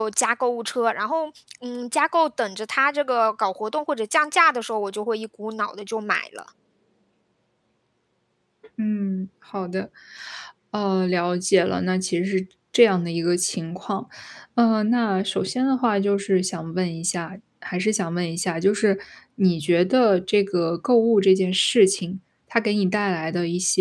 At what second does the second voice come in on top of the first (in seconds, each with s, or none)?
none